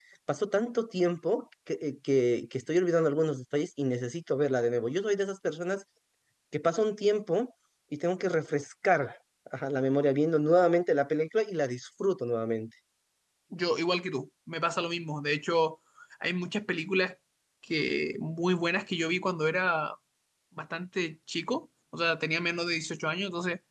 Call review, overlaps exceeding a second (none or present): none